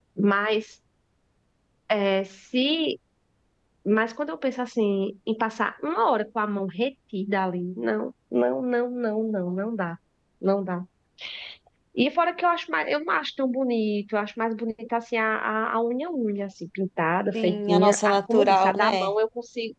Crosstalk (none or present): present